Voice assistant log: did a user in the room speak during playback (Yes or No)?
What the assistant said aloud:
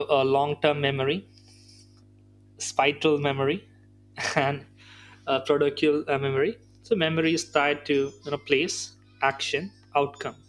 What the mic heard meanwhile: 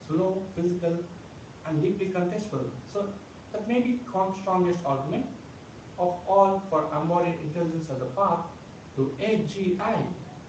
Yes